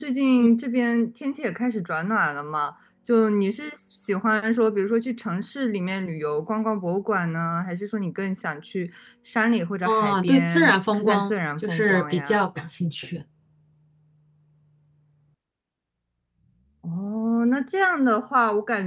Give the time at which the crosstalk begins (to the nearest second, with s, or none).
10 s